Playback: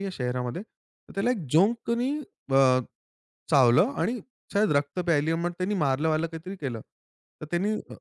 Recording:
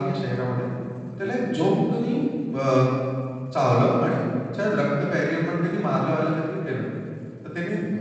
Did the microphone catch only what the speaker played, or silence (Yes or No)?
Yes